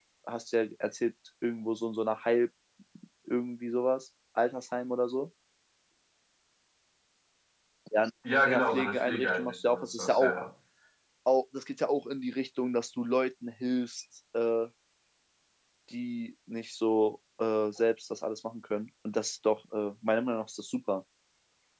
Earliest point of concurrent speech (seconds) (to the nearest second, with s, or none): 8 s